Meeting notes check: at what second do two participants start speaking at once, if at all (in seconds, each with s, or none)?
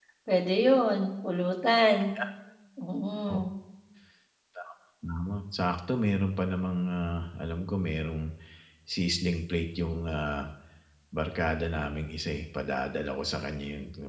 none